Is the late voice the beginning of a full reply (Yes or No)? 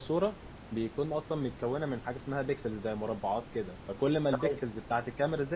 No